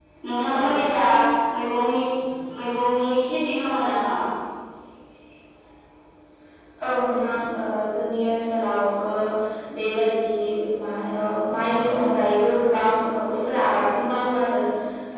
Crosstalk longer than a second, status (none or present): none